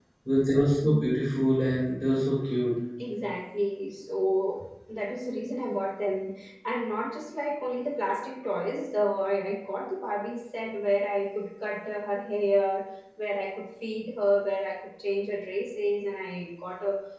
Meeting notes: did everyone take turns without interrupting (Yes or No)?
Yes